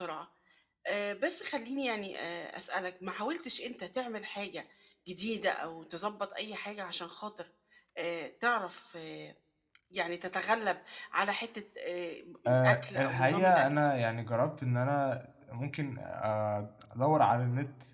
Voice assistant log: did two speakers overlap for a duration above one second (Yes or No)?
Yes